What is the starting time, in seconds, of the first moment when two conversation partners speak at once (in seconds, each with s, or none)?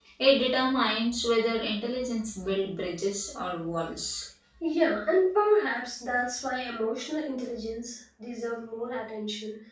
none